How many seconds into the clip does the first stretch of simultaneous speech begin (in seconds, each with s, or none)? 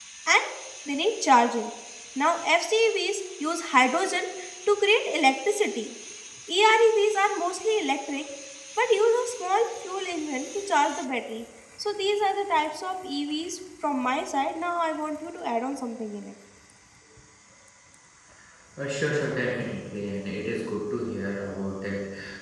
none